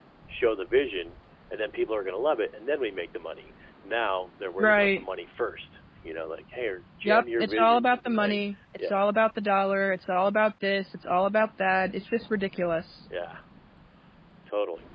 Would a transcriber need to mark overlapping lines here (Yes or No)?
Yes